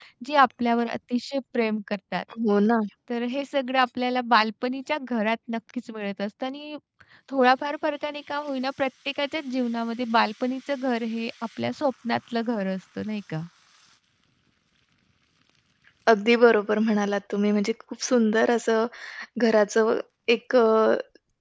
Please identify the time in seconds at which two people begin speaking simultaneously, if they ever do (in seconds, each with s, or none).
none